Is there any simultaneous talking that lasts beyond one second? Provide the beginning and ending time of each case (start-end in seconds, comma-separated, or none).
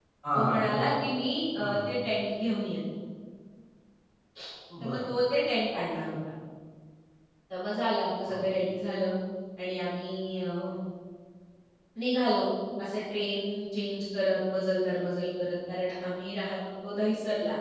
none